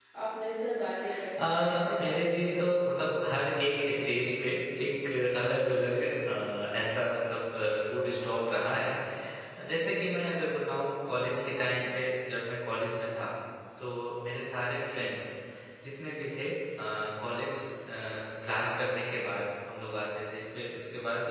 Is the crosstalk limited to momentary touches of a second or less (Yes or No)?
No